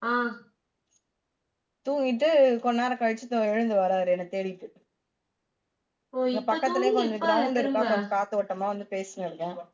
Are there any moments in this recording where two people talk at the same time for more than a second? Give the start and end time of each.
6.3-7.8

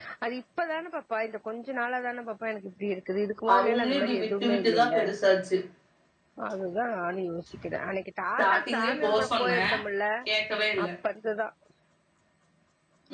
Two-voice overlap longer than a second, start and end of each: 3.6-5.0, 8.4-9.6

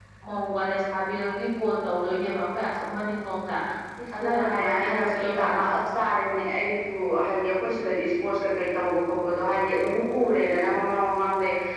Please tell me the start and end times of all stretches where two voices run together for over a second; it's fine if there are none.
4.2-5.8

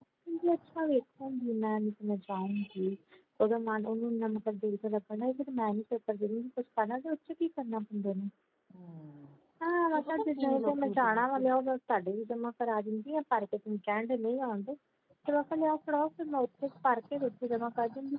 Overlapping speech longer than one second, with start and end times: 9.9-11.4

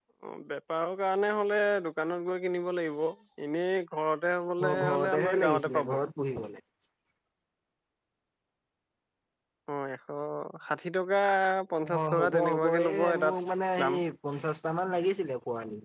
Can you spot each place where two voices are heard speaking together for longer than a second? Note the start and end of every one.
4.7-5.9, 12.0-13.4

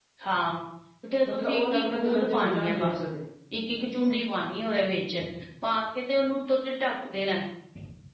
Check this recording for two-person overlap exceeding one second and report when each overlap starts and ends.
1.3-3.0

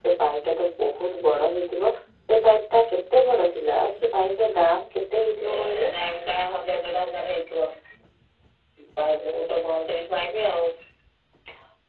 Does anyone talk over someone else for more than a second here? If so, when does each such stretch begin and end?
none

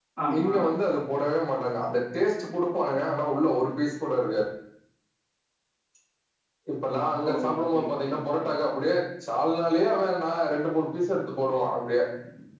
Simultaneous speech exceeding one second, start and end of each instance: 7.3-8.5

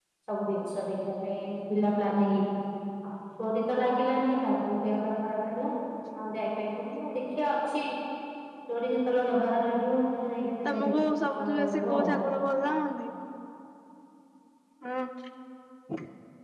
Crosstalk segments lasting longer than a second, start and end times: 10.7-12.2

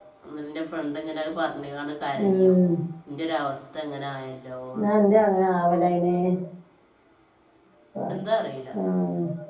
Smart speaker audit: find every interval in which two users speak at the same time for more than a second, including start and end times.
none

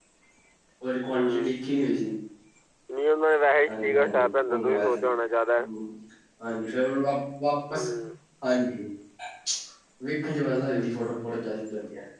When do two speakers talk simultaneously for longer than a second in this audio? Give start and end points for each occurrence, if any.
3.7-5.0

